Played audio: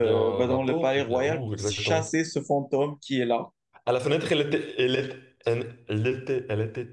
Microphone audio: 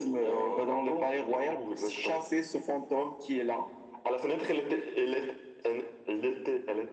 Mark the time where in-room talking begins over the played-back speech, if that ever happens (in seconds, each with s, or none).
none